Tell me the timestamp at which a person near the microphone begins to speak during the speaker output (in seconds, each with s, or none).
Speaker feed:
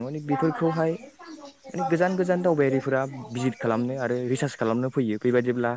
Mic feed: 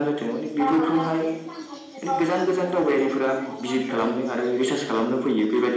none